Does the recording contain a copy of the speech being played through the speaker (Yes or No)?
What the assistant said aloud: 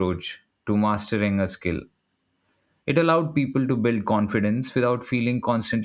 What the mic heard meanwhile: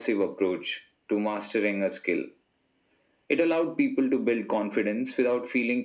Yes